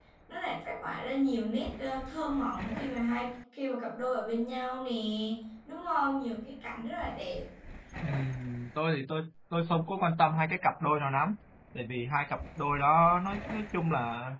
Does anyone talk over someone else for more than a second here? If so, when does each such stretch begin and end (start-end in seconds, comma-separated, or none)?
none